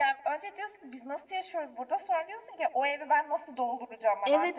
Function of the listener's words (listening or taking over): taking over